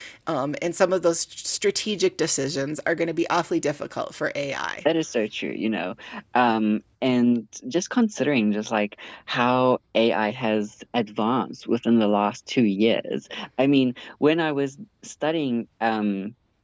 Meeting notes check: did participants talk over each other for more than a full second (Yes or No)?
No